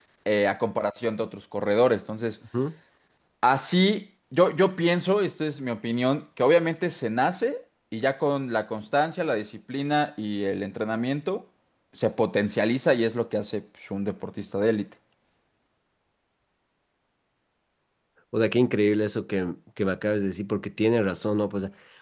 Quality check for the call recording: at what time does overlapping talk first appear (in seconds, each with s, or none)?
none